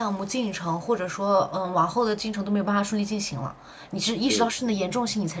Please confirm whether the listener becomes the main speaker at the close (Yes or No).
No